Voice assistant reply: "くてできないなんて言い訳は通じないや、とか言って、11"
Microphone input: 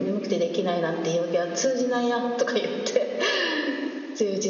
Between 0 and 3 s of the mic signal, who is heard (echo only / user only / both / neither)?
echo only